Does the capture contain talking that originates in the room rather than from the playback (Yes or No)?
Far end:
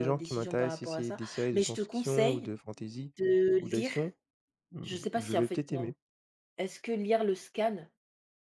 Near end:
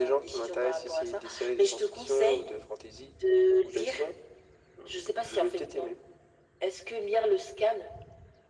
No